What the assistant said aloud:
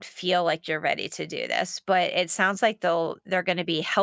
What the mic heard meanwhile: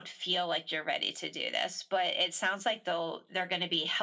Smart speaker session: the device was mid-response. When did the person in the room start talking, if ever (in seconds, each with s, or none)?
none